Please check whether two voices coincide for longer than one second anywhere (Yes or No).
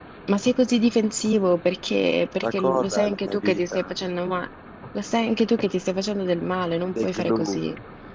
Yes